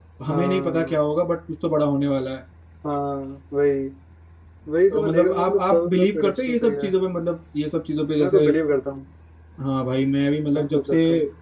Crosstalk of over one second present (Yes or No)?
Yes